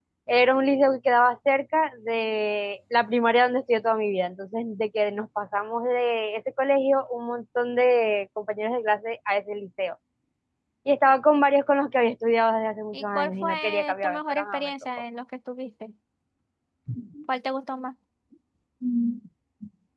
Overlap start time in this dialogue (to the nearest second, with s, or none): 13 s